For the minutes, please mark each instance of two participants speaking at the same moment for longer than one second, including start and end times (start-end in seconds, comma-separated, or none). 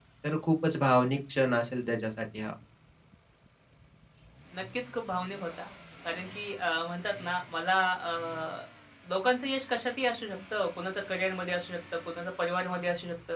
none